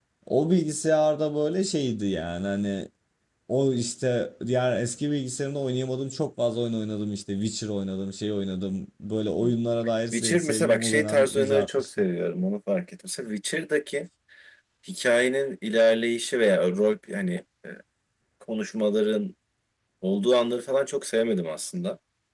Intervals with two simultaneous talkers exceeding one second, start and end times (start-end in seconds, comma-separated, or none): 10.1-12.0